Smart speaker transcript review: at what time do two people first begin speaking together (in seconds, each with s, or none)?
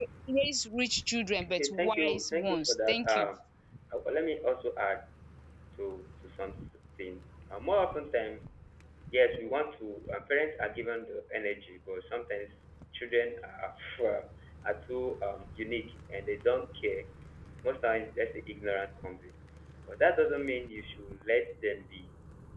1.4 s